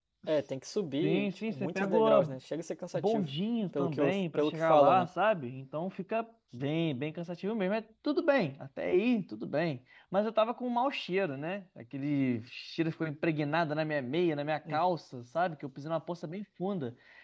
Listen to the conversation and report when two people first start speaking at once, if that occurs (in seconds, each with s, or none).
1.0 s